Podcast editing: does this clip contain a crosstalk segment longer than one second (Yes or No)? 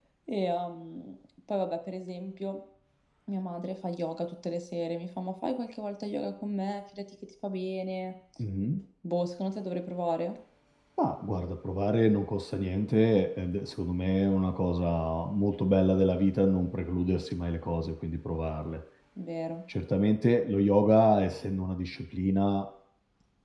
No